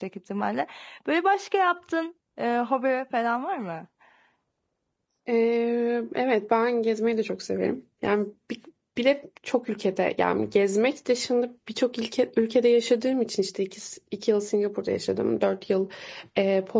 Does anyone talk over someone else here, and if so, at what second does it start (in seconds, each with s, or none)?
none